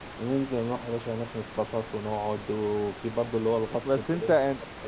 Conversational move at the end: taking over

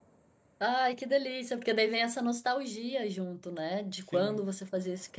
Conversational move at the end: listening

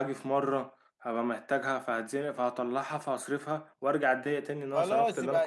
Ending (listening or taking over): taking over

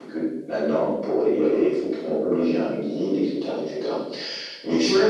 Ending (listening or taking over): taking over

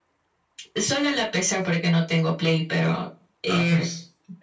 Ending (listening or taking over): taking over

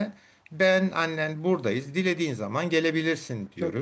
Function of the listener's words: listening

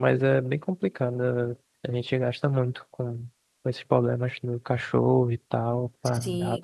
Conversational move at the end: taking over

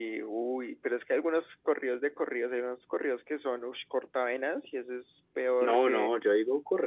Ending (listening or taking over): taking over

